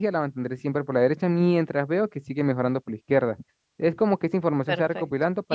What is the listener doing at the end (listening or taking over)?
taking over